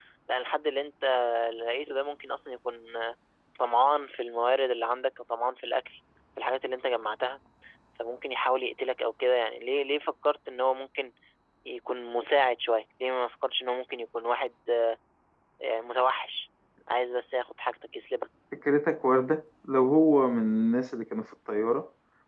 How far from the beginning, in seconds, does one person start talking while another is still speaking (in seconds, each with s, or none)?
none